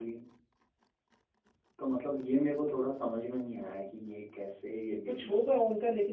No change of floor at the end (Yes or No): No